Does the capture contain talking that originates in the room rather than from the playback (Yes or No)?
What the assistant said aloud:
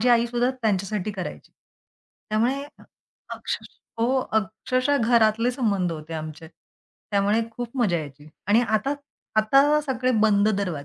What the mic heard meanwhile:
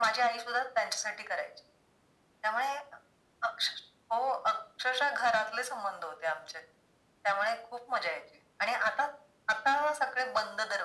No